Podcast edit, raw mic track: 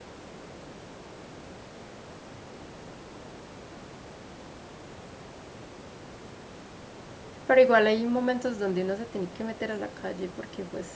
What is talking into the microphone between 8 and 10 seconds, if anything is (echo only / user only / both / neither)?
user only